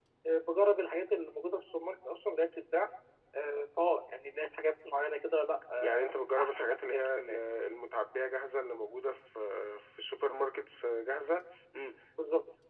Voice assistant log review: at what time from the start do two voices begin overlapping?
6 s

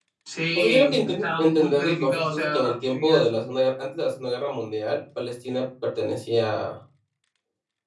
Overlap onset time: 1 s

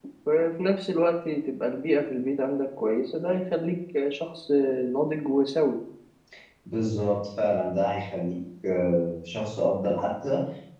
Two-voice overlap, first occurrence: none

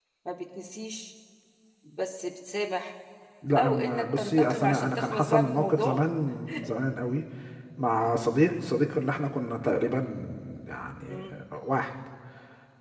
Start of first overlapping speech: 4 s

